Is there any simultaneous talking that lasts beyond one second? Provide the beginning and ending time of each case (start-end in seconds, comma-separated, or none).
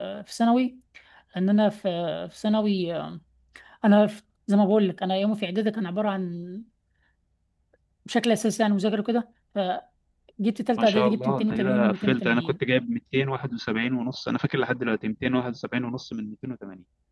10.8-12.5